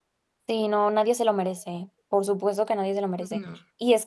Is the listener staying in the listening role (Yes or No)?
Yes